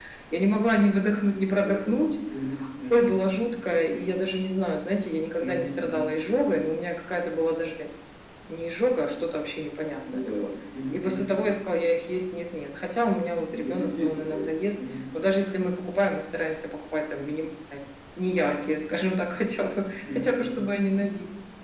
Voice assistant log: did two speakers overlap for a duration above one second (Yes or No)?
Yes